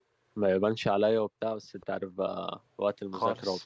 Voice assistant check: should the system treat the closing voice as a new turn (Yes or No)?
No